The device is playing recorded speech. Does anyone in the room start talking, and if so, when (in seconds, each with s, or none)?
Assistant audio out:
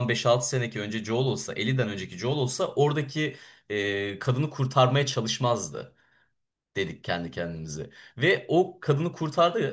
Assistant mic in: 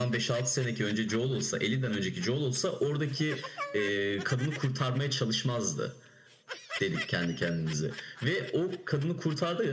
none